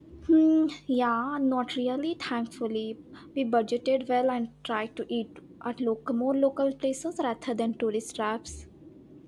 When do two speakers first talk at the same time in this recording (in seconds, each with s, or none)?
none